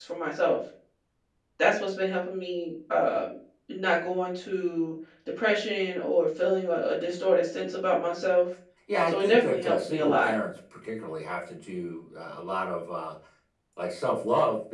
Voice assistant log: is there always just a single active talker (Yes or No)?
No